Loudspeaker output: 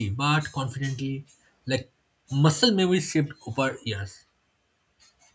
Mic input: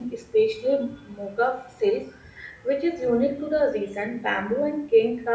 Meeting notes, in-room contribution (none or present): present